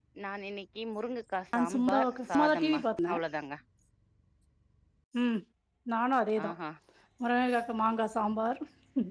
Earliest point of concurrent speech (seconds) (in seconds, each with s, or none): 1.5 s